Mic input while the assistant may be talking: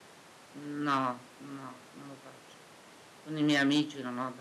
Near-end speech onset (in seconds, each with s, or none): 0.6 s